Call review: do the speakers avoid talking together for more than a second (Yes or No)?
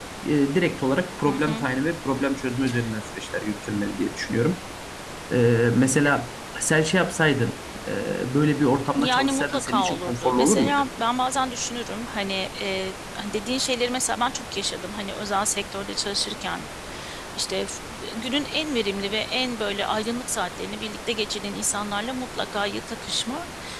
No